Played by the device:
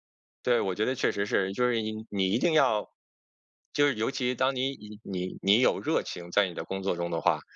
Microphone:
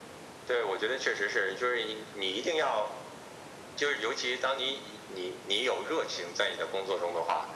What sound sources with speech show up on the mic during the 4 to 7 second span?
echo only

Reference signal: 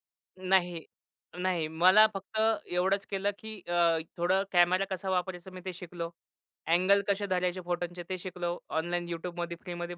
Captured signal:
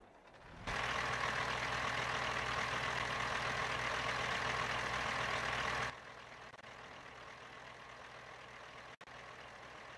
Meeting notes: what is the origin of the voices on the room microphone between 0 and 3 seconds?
neither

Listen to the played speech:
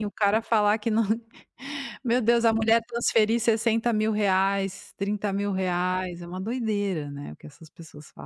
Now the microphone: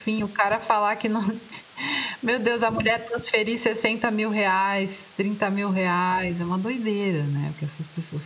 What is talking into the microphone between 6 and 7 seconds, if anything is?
echo only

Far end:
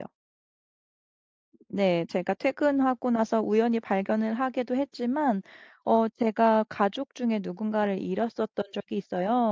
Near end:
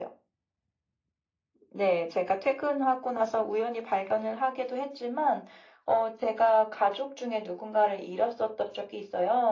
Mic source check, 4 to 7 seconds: echo only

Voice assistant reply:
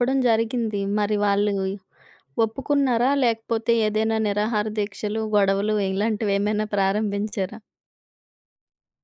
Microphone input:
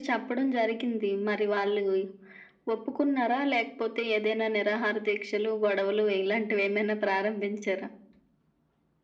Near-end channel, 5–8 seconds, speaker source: echo only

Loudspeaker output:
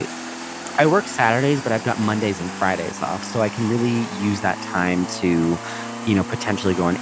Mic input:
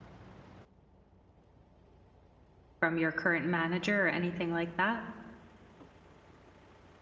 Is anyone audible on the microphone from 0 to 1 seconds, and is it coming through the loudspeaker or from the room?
neither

